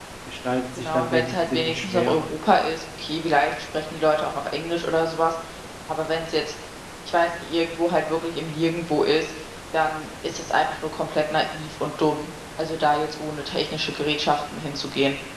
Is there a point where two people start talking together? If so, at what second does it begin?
0.8 s

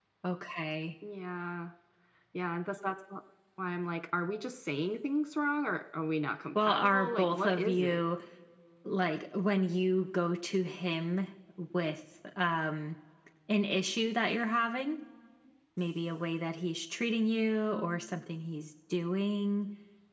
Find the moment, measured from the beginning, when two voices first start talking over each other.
6.6 s

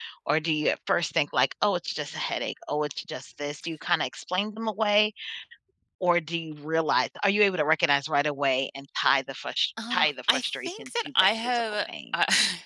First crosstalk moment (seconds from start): 9.8 s

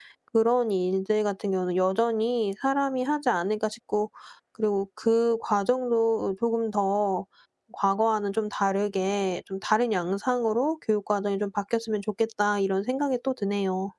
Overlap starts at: none

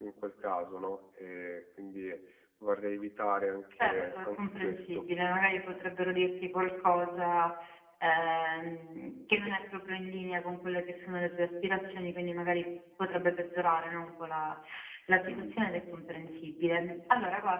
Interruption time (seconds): 3.8 s

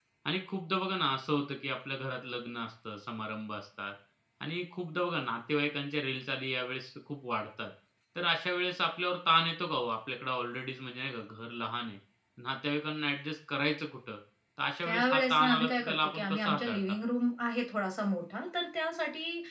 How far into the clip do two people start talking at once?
14.8 s

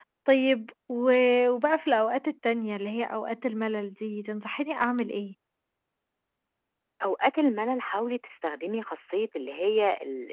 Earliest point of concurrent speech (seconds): none

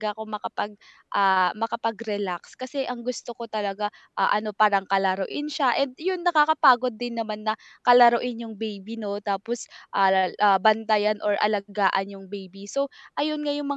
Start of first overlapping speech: none

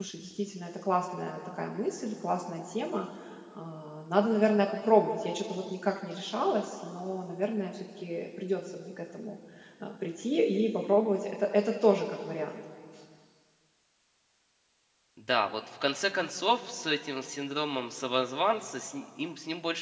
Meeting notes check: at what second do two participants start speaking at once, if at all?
none

